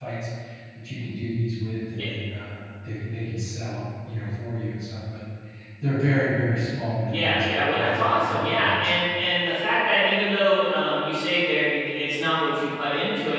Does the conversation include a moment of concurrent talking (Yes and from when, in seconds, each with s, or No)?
Yes, from 7.0 s